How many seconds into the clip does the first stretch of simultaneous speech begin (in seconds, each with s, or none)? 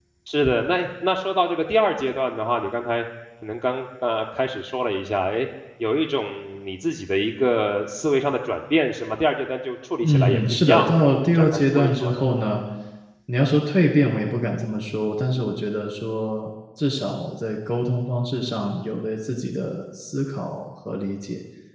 10.0 s